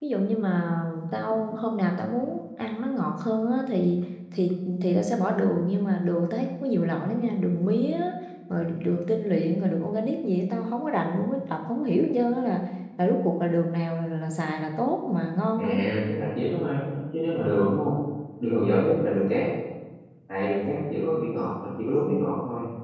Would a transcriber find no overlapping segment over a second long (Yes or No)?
Yes